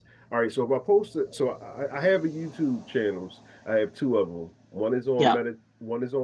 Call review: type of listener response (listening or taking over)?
listening